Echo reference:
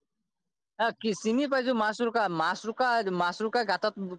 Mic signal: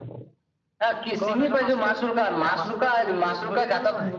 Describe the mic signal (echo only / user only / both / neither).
both